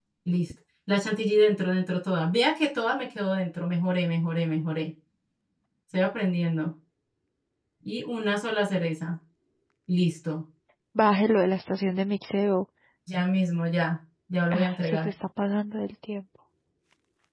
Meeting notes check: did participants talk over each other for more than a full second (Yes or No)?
No